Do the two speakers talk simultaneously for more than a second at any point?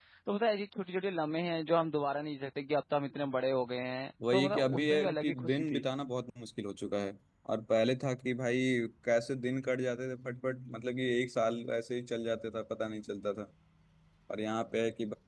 Yes, from 4.2 s

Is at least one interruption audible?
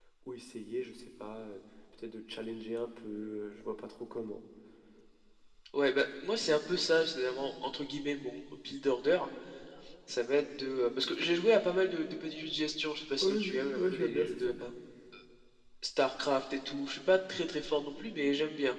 Yes, from 13.2 s

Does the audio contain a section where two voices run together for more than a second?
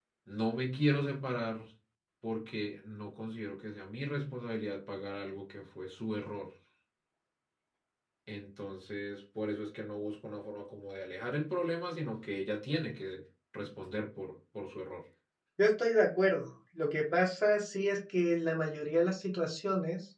No

